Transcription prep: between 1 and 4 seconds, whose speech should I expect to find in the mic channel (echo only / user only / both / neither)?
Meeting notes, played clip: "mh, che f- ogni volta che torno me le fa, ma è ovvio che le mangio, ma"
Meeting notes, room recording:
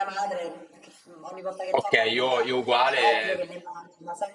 both